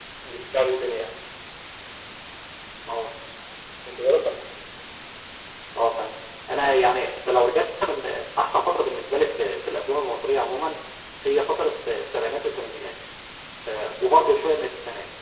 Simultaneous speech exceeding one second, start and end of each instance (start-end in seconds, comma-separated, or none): none